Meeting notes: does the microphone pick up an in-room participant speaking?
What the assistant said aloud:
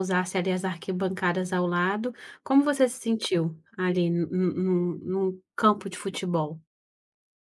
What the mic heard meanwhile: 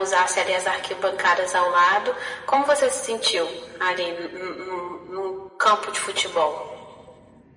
No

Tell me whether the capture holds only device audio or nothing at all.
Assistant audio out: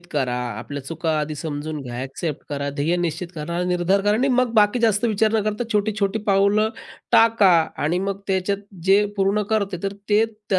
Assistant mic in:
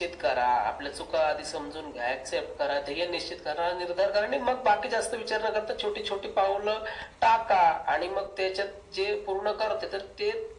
Yes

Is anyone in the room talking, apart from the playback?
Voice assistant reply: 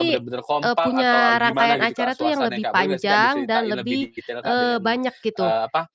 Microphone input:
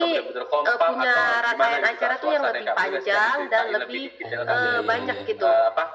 Yes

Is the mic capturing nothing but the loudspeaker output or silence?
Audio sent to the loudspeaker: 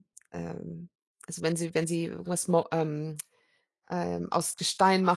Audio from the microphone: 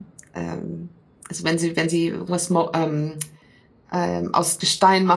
Yes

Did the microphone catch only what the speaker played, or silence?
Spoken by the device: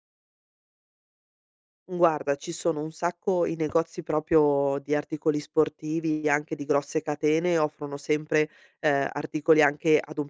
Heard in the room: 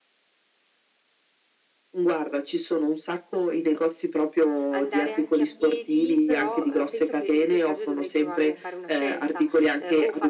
No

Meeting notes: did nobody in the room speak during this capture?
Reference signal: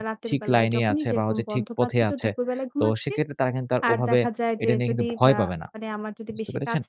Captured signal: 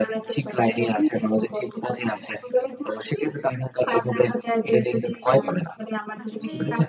No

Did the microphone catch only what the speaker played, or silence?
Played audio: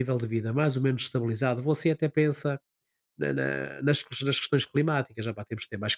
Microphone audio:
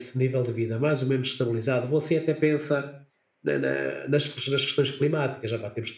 Yes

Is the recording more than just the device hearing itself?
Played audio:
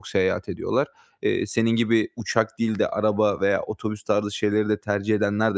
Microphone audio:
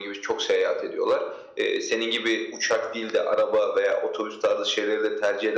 No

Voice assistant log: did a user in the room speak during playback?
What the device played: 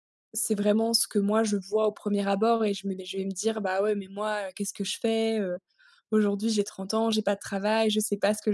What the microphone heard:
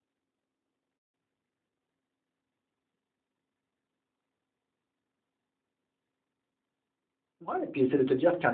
Yes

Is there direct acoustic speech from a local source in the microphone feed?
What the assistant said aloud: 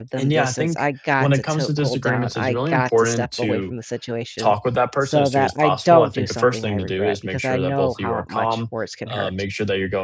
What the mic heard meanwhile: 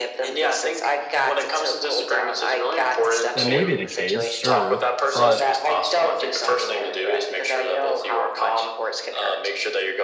Yes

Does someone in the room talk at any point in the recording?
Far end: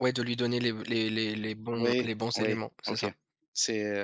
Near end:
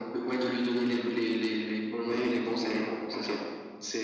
No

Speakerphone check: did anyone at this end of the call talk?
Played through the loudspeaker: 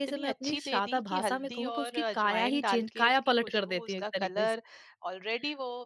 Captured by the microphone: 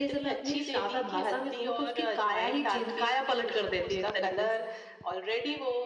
No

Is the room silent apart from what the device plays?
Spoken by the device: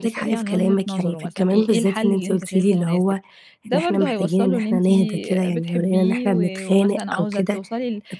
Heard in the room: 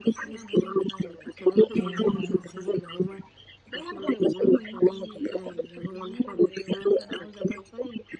No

